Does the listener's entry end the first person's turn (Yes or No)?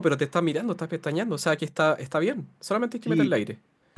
Yes